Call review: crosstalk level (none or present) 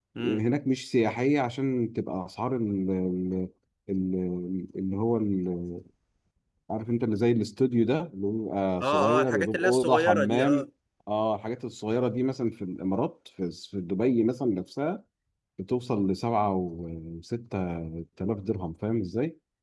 present